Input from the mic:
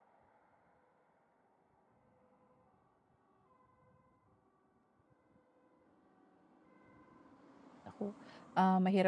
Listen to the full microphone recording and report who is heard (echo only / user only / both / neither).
user only